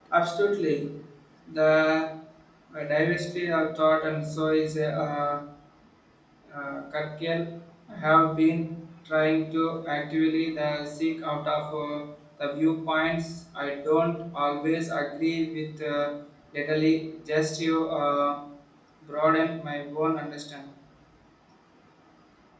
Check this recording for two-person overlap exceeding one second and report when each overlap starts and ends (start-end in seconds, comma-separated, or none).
none